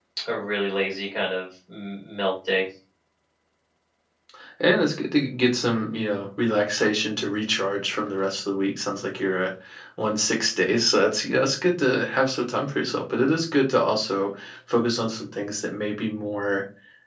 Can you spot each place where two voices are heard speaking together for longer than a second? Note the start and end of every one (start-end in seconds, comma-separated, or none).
none